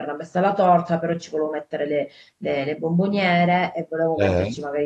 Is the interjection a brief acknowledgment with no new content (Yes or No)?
Yes